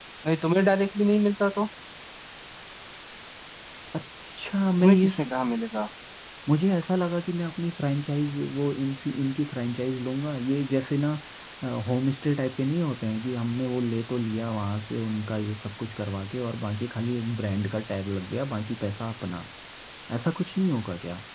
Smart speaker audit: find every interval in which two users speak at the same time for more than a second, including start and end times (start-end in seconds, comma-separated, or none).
none